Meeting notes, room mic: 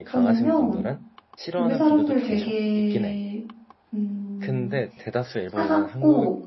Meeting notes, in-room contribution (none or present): present